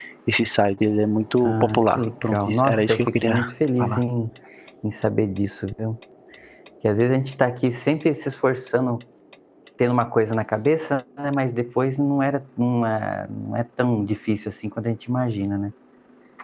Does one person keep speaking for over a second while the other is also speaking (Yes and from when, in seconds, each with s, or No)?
Yes, from 1.4 s